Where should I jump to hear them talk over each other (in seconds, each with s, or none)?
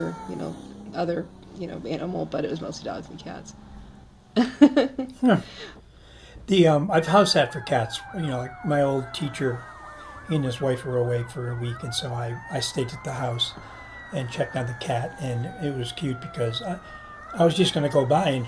none